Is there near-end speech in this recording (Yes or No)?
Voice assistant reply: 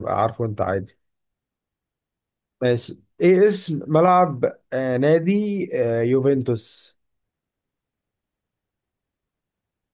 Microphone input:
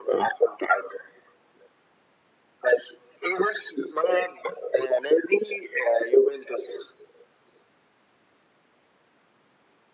No